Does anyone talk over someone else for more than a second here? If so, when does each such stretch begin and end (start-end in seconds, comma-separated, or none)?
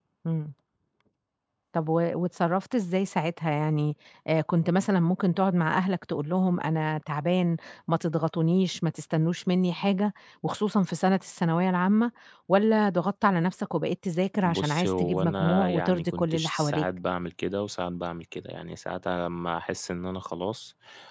14.4-16.8